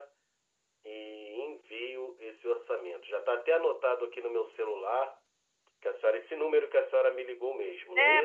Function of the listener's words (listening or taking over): taking over